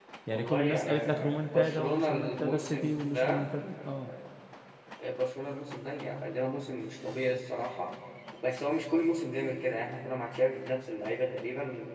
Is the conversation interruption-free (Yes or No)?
No